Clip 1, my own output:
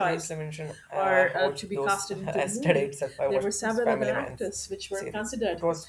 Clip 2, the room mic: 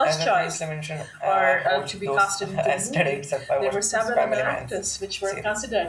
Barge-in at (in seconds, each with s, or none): none